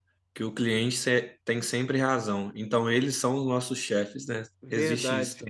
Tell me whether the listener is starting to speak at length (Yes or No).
Yes